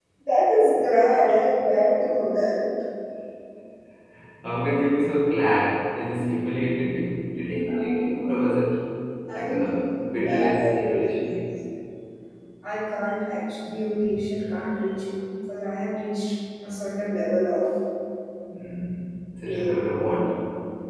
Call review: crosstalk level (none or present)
present